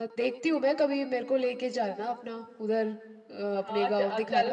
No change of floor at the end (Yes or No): No